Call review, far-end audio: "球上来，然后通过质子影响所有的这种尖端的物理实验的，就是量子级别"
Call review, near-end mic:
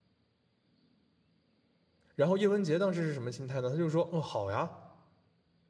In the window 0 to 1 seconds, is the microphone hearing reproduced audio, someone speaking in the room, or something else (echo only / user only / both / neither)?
neither